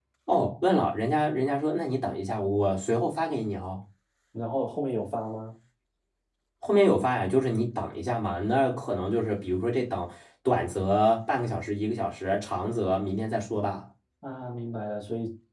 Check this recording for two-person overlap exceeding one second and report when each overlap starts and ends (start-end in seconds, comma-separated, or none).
none